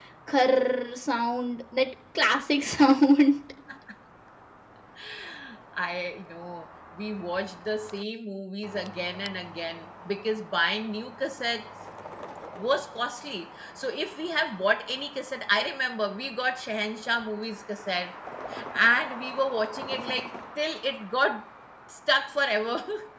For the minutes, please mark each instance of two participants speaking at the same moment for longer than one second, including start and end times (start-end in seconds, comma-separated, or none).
none